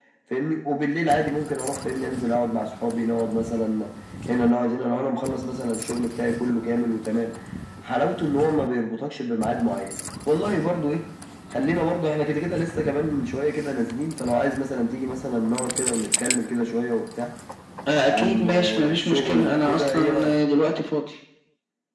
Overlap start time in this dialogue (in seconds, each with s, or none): 18.1 s